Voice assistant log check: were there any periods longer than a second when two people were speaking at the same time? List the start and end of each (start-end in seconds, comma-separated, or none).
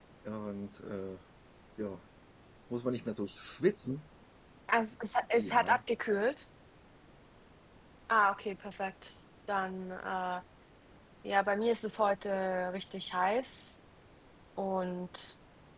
none